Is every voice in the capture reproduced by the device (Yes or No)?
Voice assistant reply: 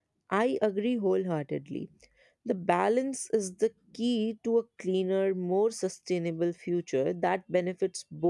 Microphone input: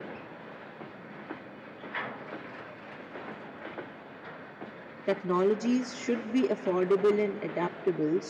No